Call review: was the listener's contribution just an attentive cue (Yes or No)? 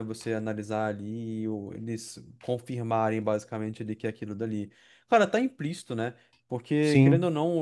Yes